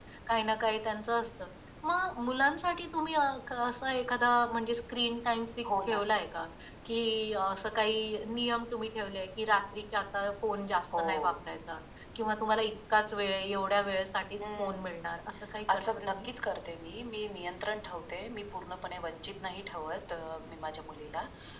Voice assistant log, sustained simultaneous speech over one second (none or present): none